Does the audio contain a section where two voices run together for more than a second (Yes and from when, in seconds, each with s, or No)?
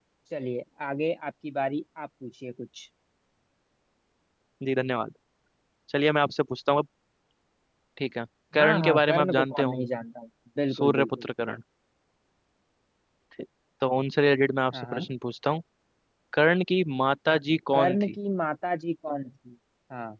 Yes, from 8.6 s